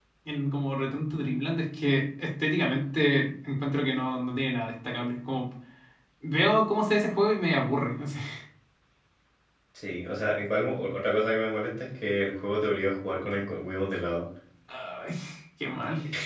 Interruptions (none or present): none